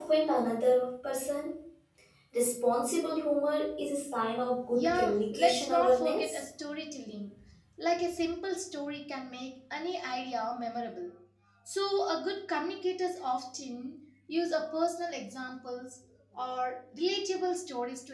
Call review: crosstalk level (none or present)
present